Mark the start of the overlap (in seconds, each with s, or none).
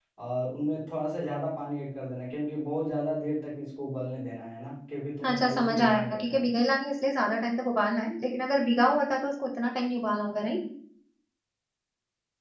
5.2 s